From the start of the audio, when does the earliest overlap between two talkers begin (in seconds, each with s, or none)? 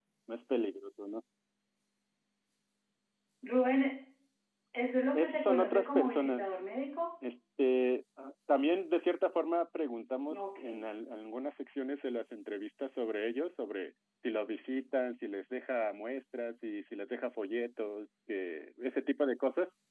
5.1 s